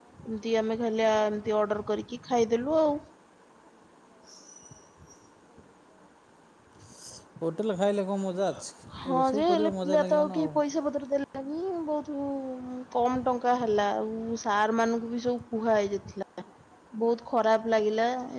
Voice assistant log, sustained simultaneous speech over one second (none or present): present